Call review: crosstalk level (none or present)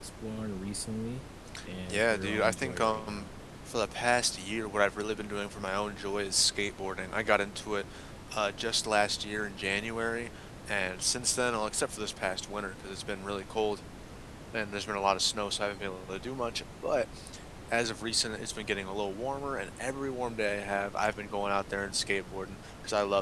present